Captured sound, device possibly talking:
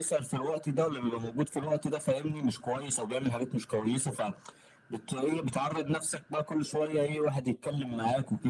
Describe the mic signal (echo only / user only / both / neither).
echo only